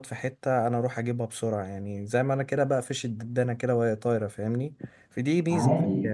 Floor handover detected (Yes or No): Yes